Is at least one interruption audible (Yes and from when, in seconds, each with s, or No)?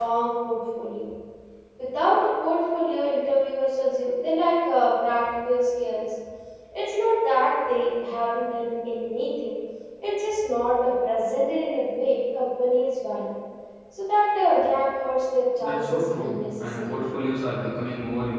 Yes, from 15.6 s